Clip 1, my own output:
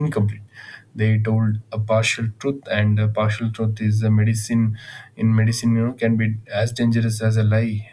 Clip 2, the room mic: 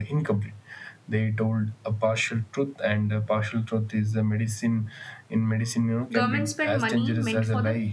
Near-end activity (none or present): present